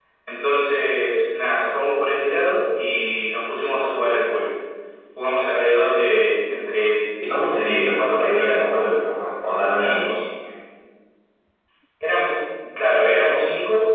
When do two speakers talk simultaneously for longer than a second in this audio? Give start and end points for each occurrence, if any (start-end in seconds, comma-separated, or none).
7.6-8.9